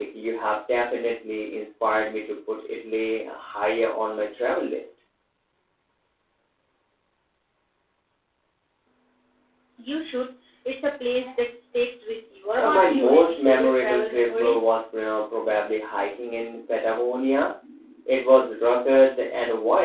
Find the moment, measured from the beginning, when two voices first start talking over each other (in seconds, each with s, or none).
12.6 s